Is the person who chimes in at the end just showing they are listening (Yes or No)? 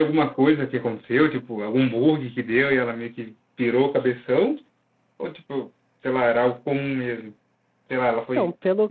No